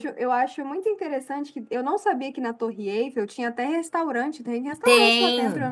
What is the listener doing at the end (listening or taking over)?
taking over